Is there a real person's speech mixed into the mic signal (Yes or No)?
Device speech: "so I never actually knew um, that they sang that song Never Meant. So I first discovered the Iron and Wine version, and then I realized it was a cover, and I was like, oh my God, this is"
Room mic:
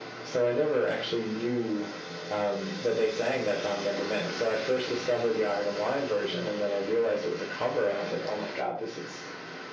No